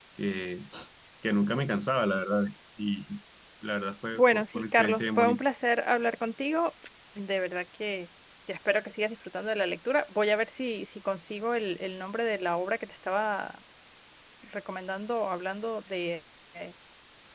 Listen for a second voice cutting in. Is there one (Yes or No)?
Yes